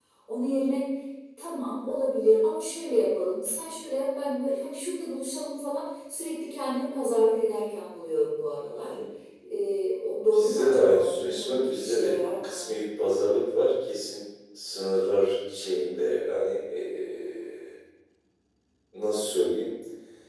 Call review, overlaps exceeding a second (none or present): present